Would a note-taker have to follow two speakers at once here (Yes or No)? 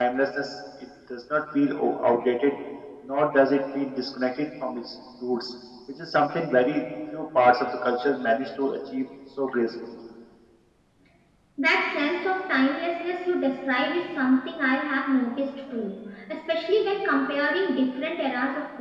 No